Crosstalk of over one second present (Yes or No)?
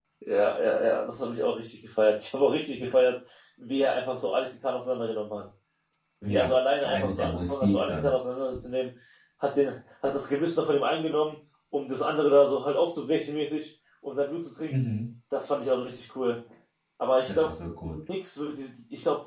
Yes